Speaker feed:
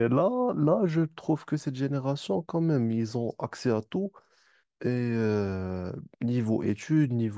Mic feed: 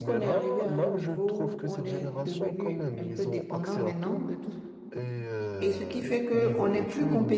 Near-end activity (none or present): present